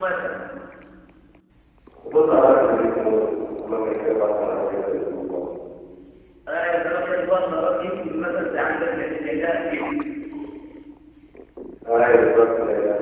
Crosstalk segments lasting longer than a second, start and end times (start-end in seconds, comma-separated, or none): none